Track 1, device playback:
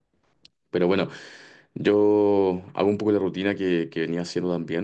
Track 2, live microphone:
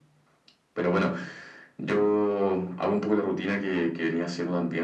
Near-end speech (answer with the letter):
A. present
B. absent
B